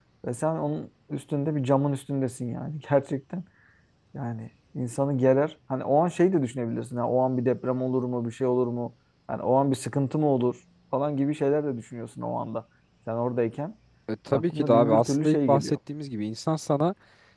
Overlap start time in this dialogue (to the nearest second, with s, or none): 14 s